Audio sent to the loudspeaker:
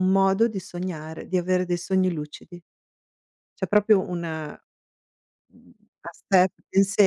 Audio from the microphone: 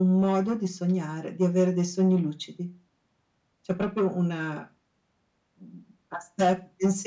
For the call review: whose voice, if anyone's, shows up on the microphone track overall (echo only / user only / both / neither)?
echo only